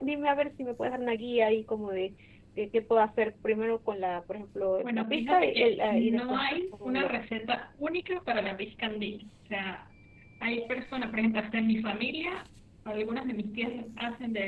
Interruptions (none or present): present